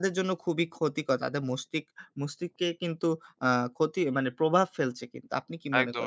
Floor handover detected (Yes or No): Yes